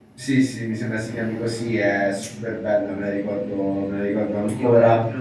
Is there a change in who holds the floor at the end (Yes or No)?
Yes